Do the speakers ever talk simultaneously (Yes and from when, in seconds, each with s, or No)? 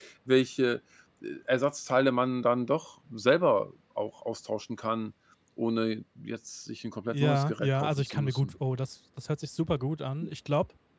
Yes, from 7.1 s